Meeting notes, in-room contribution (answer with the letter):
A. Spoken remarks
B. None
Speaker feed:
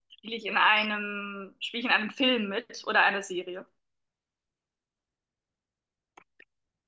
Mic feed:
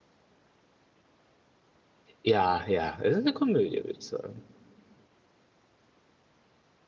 A